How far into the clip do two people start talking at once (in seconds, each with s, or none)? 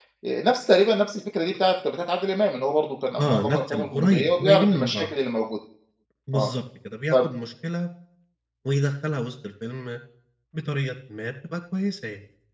3.2 s